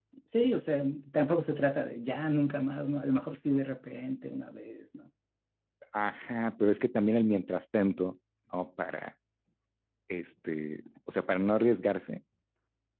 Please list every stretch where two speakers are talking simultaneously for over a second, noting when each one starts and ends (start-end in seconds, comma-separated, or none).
none